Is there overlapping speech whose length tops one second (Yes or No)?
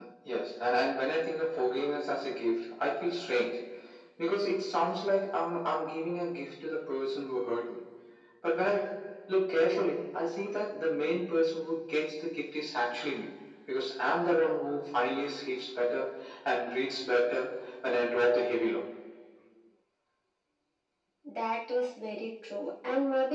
No